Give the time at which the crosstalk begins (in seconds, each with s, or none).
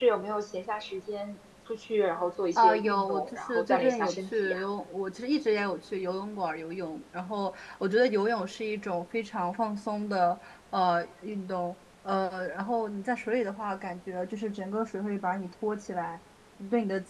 2.5 s